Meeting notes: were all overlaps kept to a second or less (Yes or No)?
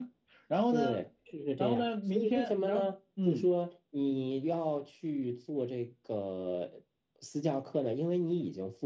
No